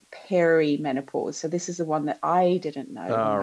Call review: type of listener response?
listening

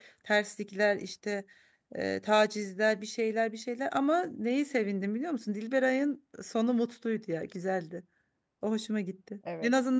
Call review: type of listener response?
listening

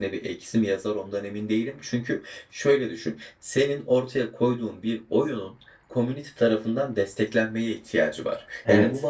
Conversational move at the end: listening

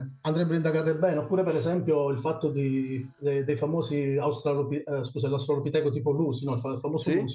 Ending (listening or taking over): listening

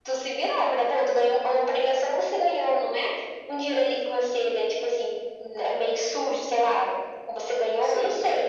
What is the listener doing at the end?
listening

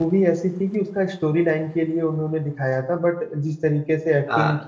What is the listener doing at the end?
listening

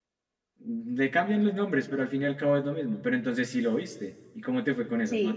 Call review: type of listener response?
taking over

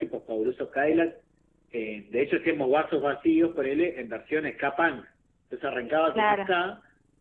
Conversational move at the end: listening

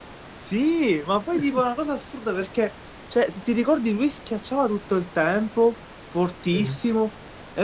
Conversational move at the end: listening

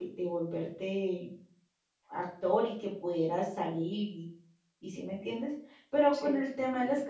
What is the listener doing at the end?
listening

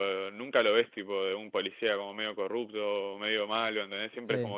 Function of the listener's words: taking over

